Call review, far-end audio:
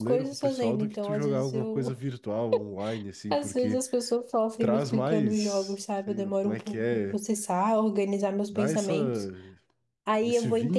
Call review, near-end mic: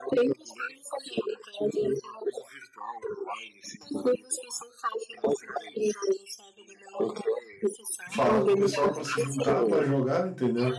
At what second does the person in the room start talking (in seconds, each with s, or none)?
8.1 s